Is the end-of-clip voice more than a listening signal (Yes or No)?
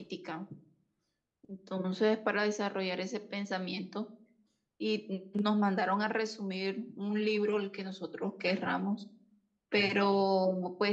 No